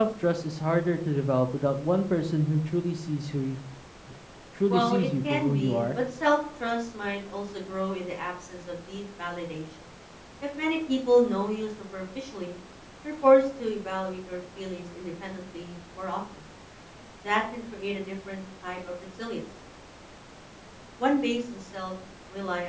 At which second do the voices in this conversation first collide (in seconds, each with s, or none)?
4.7 s